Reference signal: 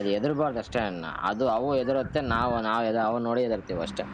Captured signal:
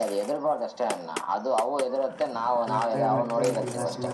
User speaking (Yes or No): Yes